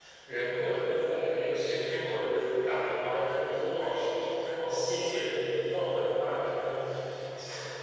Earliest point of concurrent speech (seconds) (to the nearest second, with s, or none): none